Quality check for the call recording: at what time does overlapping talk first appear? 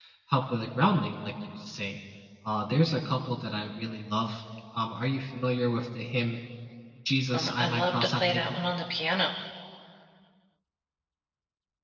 7.3 s

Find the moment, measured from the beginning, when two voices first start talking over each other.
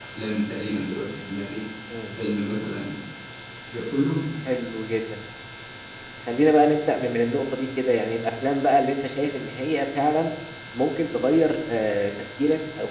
none

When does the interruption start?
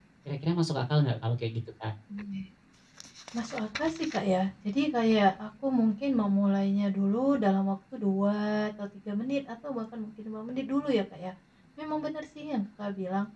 none

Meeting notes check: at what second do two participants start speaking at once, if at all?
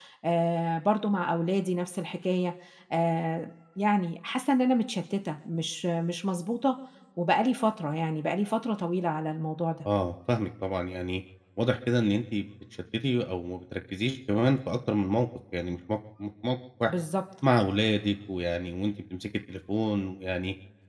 none

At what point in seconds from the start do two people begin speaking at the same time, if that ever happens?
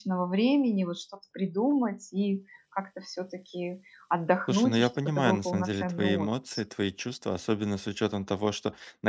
4.5 s

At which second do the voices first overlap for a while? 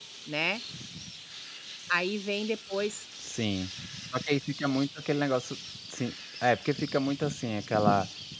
none

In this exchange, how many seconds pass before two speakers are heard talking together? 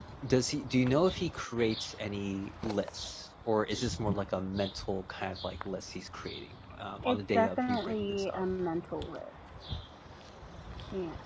7.0 s

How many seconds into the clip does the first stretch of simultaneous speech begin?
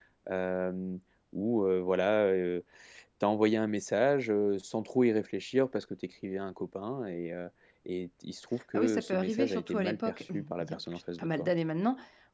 8.7 s

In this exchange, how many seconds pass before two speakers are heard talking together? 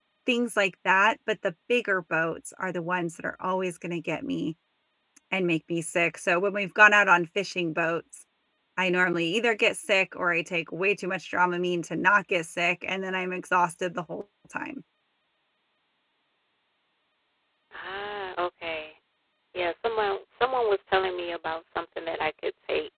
none

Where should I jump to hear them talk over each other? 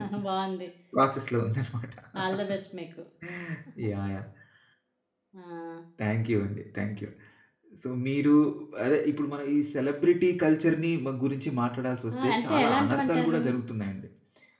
12.1 s

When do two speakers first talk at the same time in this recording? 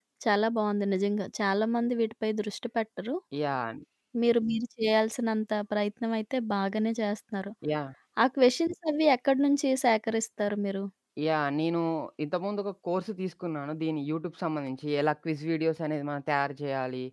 none

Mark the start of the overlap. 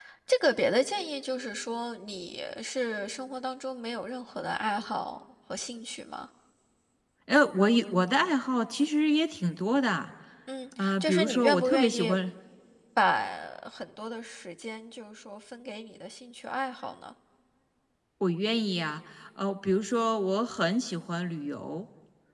10.8 s

